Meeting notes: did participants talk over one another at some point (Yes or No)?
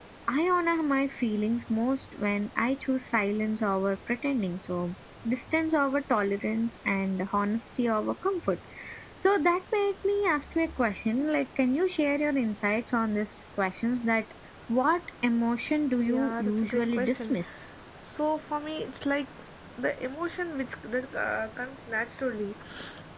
Yes